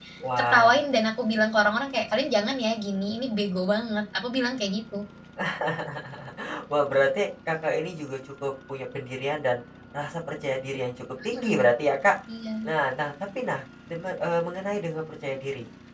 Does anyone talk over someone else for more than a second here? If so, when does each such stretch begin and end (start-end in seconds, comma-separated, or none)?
none